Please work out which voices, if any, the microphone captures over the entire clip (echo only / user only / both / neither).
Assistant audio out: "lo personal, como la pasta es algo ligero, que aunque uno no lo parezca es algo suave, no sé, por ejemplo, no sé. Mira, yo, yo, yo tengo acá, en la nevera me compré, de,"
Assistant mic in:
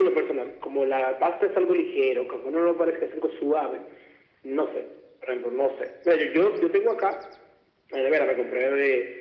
echo only